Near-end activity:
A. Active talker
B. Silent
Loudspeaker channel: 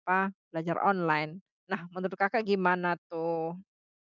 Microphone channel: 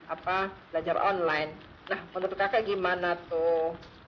B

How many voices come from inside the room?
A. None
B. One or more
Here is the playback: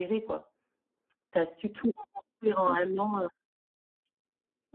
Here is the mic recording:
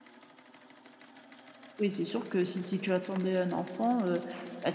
B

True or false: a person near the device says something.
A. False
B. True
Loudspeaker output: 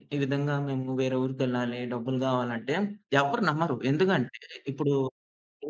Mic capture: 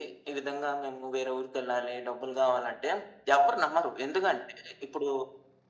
A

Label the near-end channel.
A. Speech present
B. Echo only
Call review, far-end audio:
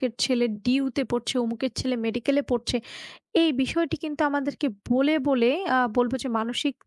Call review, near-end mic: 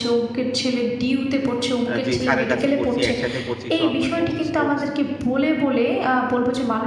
A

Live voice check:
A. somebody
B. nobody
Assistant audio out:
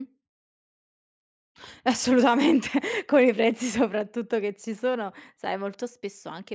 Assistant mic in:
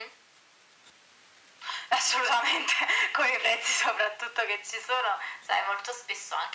B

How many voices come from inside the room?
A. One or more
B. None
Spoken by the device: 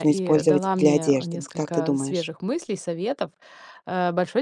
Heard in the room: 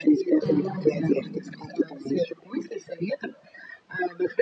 A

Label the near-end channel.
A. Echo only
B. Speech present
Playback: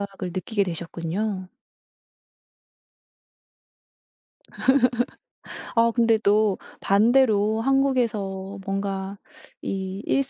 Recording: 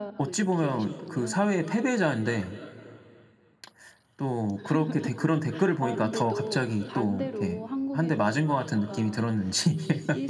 B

